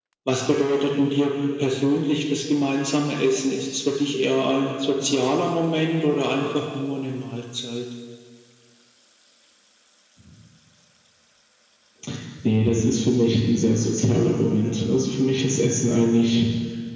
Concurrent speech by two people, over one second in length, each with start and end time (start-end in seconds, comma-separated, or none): none